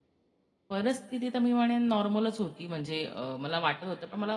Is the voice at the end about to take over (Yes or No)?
No